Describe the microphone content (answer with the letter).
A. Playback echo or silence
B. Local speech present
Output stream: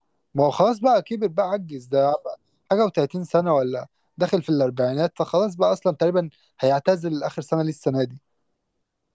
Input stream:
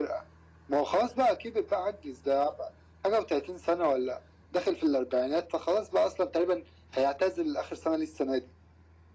A